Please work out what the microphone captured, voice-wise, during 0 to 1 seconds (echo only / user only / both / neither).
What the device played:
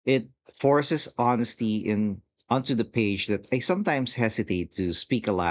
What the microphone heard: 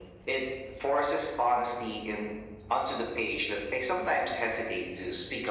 echo only